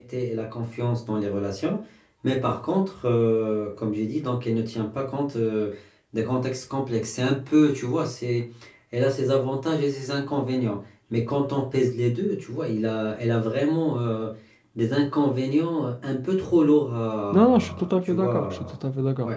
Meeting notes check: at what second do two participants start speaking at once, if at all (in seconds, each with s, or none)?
17.3 s